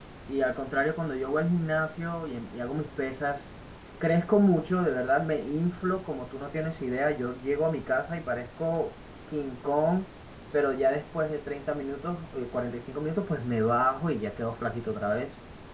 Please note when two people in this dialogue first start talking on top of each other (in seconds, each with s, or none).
none